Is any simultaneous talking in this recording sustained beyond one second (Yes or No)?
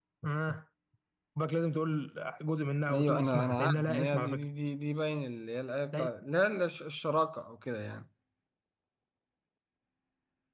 Yes